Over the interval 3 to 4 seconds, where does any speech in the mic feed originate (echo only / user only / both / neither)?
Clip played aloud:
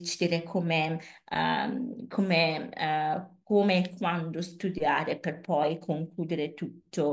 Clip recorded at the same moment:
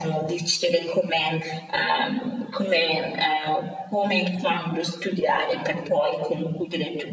echo only